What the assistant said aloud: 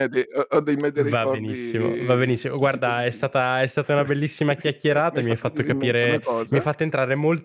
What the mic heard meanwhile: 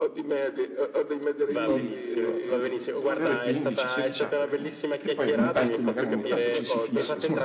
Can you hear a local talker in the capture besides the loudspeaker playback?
Yes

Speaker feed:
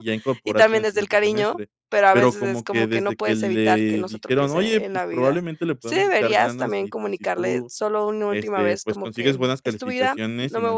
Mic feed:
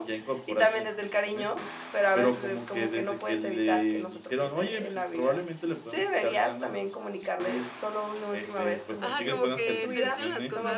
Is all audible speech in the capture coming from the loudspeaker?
No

